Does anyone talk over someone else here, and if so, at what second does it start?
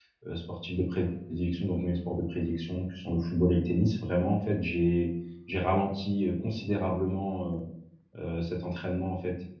none

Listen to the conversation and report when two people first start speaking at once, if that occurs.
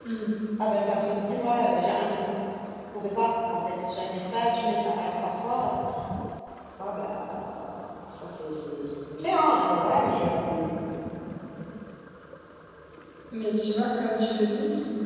none

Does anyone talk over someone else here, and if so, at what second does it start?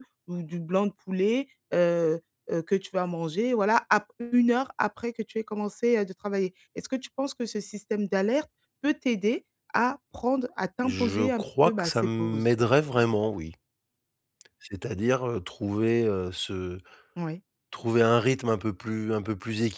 10.8 s

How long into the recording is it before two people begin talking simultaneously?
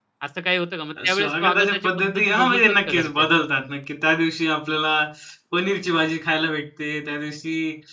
1.1 s

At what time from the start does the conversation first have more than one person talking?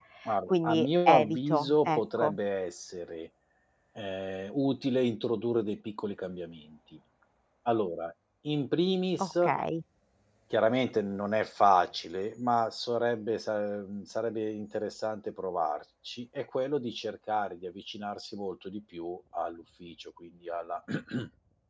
0.5 s

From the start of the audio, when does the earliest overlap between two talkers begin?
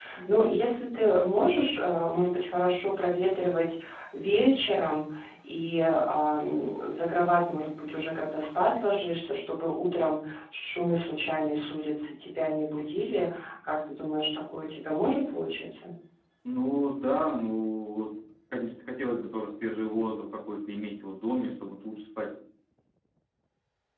none

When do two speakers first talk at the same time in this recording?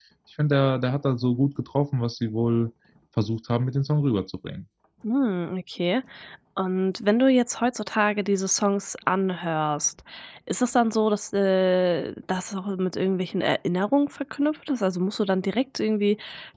none

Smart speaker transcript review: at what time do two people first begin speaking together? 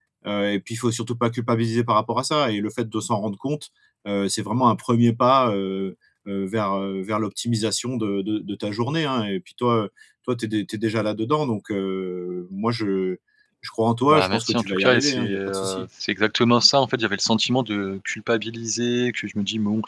14.1 s

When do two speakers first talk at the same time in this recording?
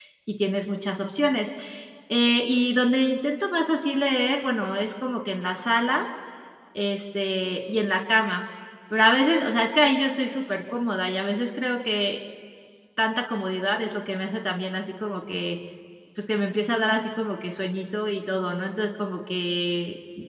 none

